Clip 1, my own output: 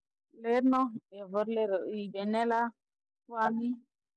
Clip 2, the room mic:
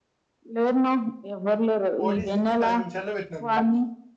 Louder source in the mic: echo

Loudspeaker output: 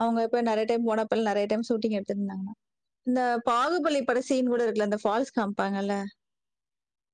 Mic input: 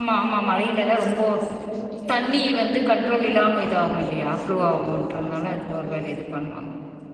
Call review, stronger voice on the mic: user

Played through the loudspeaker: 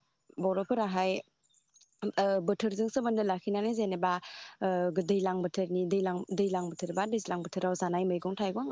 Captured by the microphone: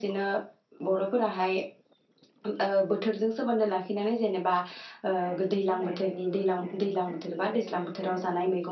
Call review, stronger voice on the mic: echo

